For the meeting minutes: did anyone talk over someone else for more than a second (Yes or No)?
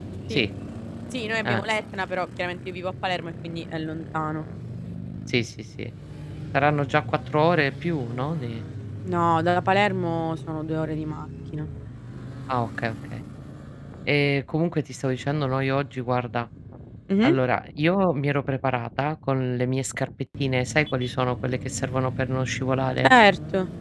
No